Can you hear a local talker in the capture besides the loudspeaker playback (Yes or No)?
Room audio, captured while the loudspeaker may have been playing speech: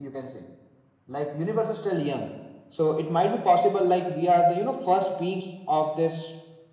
No